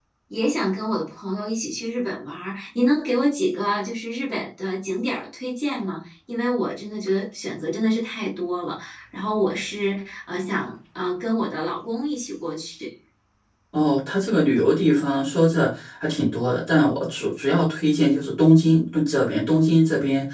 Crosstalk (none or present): none